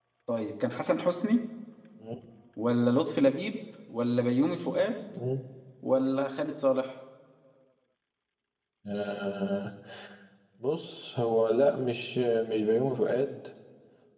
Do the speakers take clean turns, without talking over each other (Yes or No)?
Yes